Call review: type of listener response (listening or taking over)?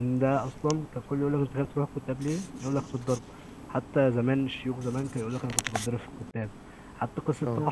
listening